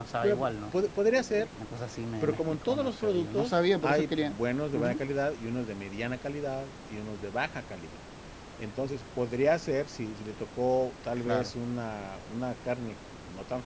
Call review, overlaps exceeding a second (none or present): present